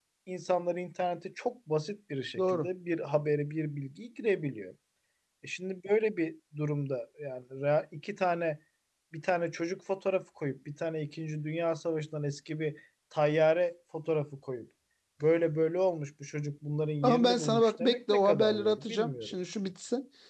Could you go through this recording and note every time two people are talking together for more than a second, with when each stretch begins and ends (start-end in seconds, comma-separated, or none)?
17.0-19.3